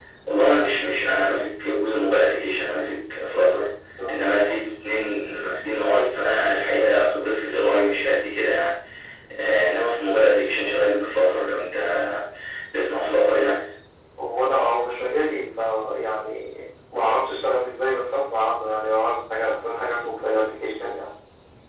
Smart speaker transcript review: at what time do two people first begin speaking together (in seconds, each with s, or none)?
none